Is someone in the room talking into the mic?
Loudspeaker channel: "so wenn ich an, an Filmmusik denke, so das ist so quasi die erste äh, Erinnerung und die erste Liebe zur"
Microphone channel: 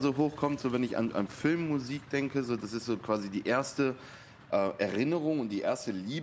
No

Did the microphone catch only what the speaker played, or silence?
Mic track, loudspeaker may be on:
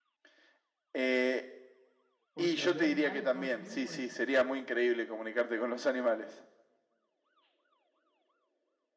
No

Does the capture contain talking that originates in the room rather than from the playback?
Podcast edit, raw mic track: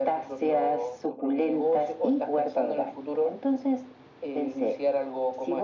No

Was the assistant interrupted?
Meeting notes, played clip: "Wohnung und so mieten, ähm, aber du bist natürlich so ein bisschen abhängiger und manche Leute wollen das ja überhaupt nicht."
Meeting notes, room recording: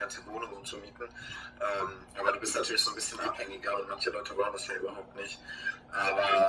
No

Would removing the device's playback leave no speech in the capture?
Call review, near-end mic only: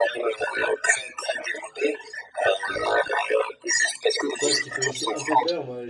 No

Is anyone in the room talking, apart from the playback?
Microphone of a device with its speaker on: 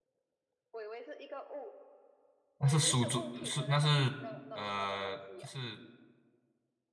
Yes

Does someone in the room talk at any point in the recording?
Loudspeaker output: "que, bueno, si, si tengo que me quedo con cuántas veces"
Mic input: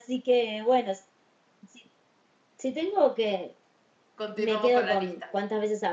Yes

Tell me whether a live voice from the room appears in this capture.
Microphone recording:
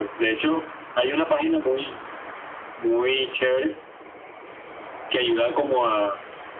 No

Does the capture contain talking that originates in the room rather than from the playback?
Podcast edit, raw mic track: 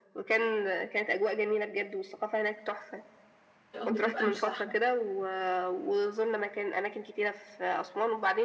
Yes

